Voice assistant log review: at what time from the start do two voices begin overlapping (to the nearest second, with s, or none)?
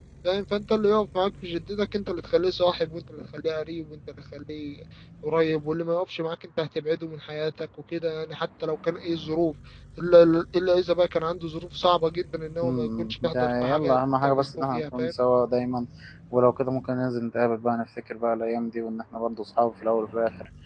13 s